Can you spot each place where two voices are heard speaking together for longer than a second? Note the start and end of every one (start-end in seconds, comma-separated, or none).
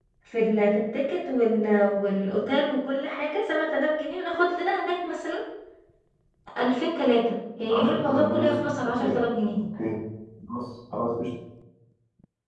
7.7-9.2